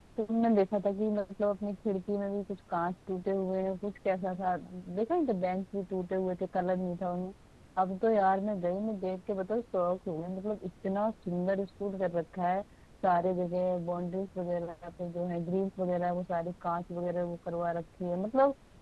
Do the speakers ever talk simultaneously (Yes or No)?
No